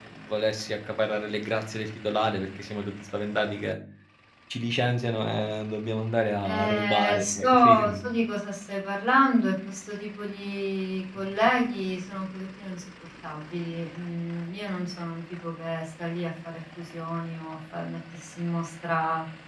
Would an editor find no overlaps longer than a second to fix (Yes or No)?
No